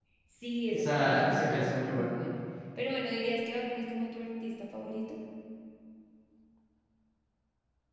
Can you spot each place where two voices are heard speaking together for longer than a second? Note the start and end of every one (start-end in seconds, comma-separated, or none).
0.7-2.1